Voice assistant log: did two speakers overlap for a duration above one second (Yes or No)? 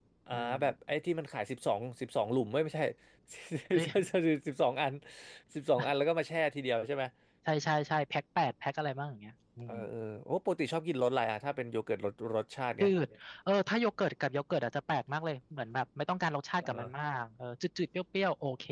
No